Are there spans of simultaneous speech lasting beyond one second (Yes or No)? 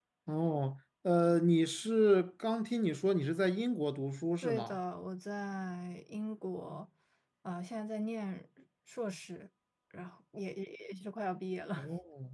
No